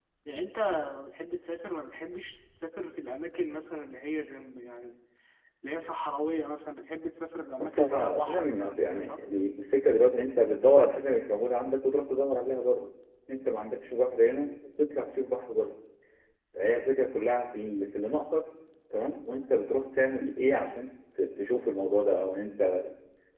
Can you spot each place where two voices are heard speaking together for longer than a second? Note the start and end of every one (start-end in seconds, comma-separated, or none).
7.6-9.2